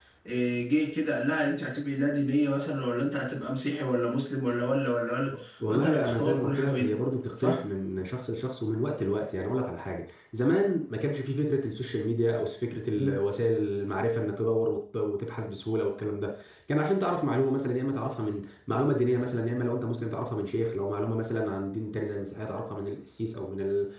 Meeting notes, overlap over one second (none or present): present